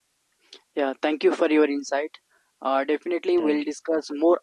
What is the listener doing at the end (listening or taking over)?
listening